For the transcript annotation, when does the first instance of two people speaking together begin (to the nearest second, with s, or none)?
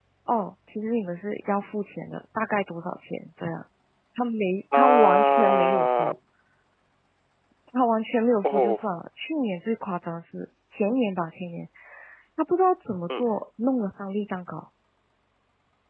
5 s